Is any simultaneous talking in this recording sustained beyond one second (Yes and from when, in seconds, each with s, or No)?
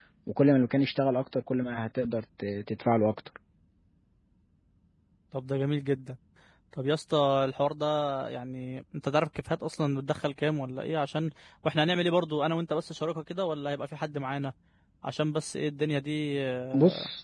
No